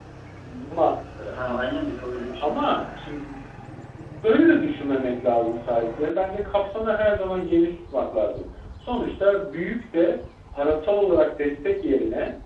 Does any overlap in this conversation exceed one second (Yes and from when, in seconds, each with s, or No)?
No